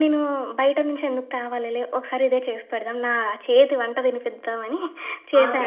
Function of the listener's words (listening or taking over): taking over